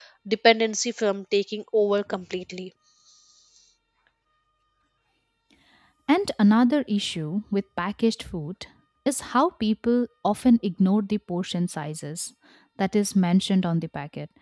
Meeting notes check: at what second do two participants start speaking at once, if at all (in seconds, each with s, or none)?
none